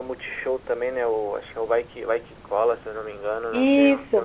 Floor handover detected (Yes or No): Yes